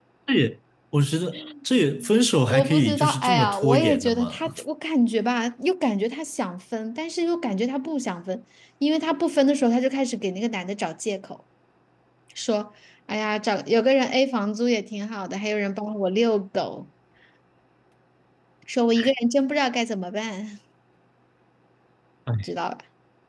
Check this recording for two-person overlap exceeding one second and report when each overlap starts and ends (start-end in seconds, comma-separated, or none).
2.4-4.5